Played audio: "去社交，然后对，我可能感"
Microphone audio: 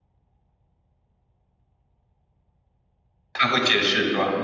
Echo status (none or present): none